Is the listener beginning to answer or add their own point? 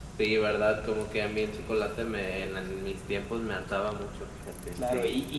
Yes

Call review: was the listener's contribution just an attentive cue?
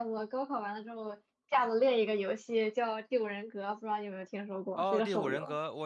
No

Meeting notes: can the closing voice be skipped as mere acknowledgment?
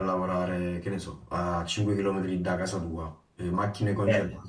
Yes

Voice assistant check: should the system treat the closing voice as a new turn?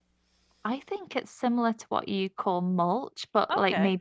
No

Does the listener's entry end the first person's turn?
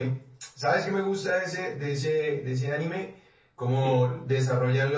No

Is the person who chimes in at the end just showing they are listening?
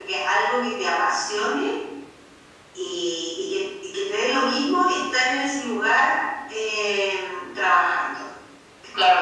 No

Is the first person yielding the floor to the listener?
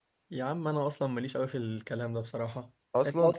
No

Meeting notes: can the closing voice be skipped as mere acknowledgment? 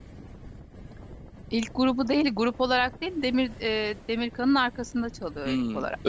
No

